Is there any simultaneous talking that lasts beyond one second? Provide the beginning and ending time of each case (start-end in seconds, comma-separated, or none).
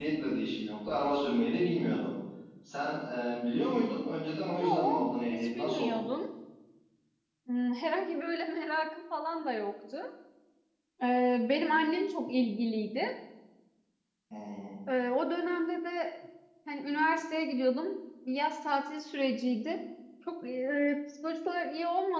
4.5-6.0